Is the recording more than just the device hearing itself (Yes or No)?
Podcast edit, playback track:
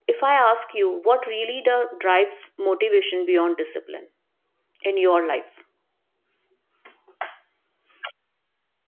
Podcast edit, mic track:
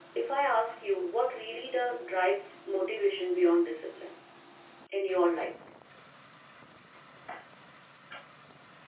No